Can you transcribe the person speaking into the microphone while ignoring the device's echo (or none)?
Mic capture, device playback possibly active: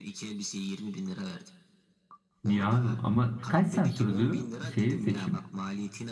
Niye abi? Ama kaç saat sürdü şeyi seçim?